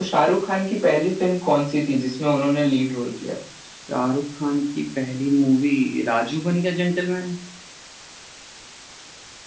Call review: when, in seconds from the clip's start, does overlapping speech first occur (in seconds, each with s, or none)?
none